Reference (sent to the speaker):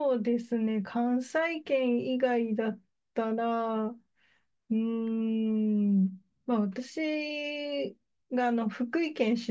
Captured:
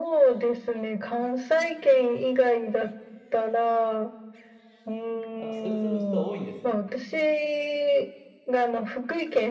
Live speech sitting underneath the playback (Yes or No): Yes